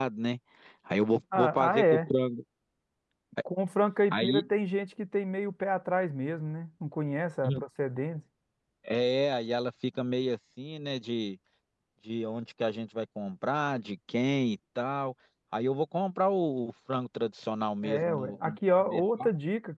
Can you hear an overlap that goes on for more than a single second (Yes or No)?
Yes